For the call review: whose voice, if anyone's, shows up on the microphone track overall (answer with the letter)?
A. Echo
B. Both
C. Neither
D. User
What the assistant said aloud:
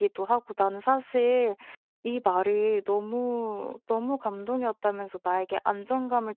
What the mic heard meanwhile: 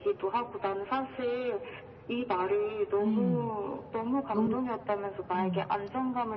B